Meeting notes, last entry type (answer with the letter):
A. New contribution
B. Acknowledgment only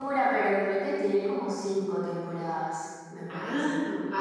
A